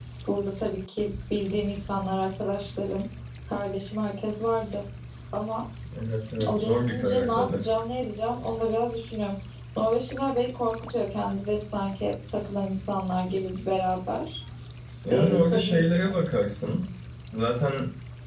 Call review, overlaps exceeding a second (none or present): present